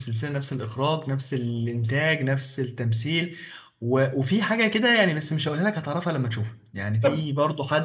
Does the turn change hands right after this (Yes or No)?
No